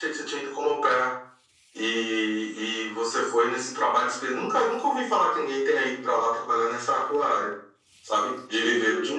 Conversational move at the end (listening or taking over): taking over